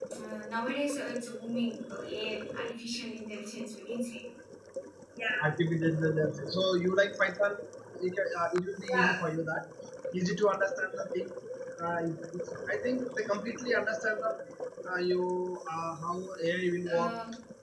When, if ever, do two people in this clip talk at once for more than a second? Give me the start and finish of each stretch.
none

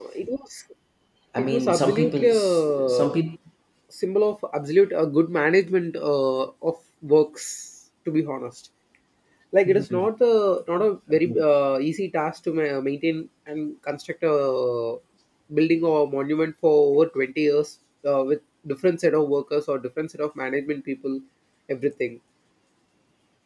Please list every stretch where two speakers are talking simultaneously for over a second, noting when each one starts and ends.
1.4-3.1

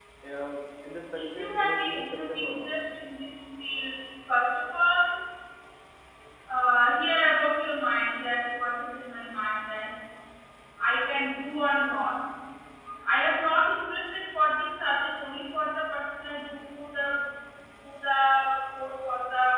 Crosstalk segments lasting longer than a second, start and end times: 1.1-2.7

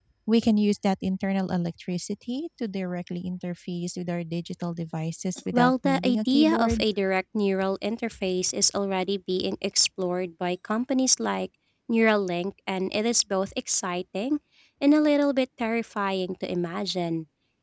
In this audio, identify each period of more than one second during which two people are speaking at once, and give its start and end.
5.5-6.8

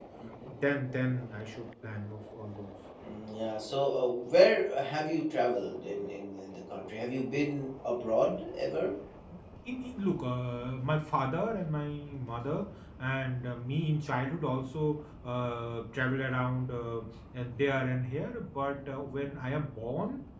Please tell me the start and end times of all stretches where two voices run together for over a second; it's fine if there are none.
none

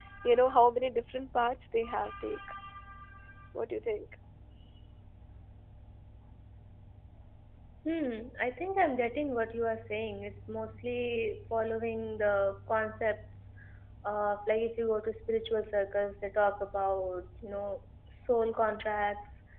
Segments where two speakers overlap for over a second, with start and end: none

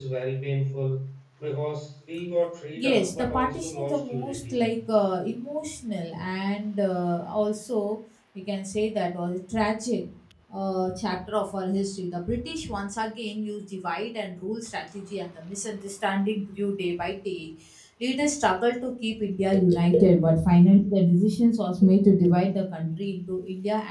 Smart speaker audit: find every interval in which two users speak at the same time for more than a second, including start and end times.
2.8-4.6

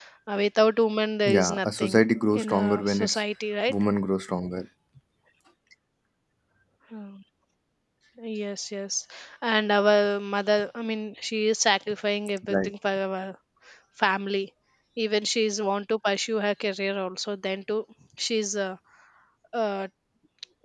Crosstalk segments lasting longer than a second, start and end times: 1.3-3.2

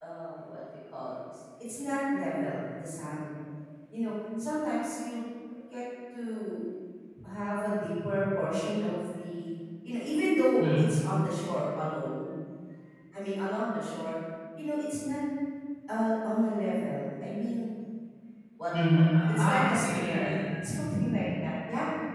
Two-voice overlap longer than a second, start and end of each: 18.7-20.4

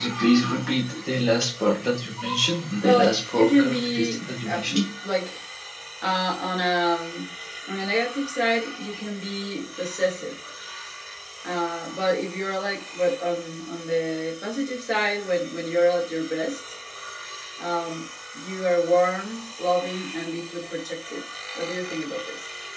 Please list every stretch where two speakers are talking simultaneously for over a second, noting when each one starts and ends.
2.8-4.9

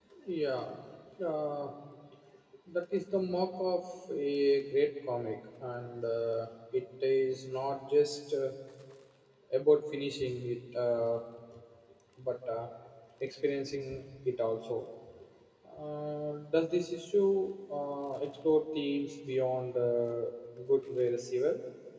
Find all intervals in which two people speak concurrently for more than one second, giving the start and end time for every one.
none

